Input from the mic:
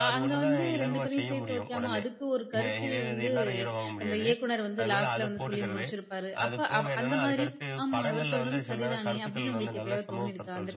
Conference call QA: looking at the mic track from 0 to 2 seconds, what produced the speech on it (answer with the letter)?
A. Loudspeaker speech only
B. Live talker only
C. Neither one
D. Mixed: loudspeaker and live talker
D